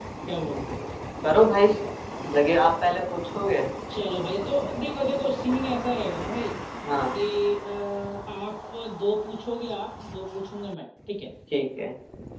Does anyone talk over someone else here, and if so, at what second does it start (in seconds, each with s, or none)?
none